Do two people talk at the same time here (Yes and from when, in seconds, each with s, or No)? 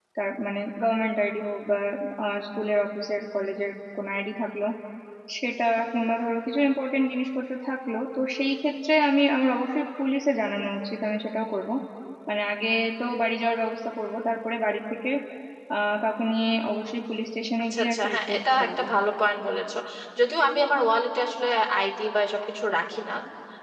Yes, from 17.6 s